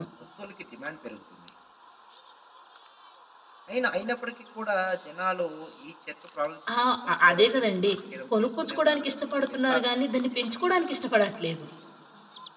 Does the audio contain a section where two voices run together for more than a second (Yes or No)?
Yes